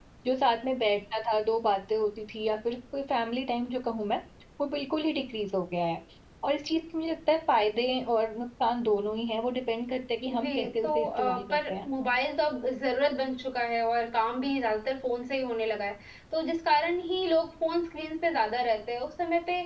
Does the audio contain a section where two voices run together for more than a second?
Yes, from 10.3 s

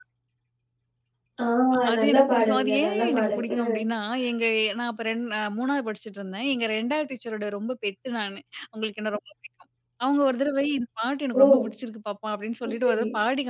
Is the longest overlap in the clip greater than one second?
Yes, from 2.0 s

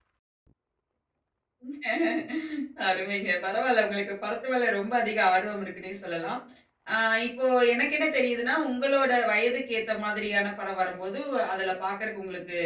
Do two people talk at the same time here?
No

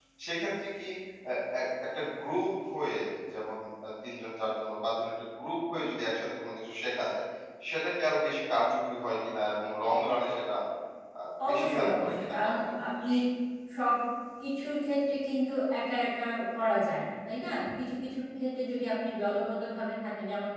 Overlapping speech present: Yes, from 11.5 s

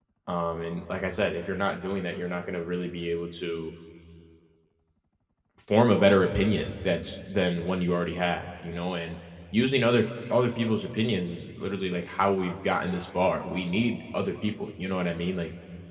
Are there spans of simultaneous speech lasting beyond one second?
No

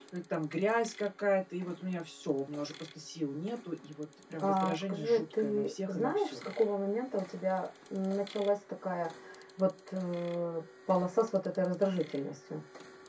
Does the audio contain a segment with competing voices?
Yes, from 4.4 s

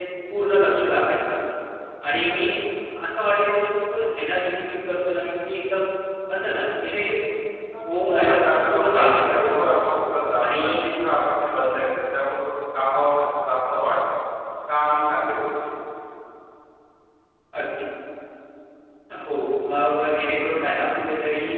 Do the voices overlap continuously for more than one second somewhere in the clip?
Yes, from 8.1 s

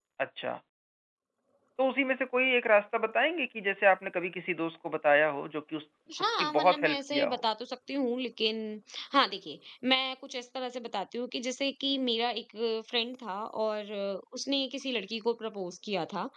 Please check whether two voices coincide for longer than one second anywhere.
Yes, from 6.1 s

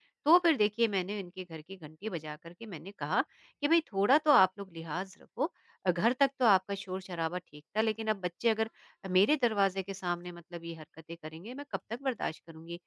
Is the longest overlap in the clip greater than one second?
No

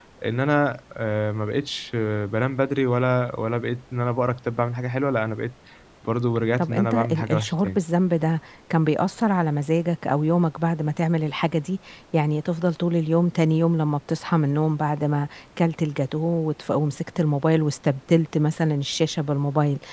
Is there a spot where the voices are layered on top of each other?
Yes, from 6.6 s

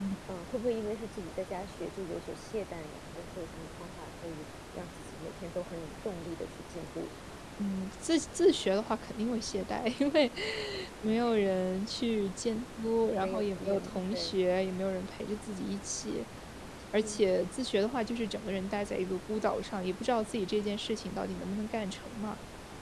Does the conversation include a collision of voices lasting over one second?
Yes, from 13.2 s

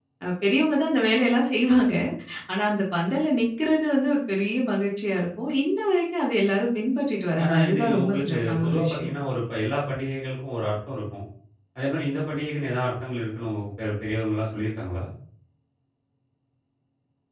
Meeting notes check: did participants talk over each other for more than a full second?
Yes, from 7.4 s

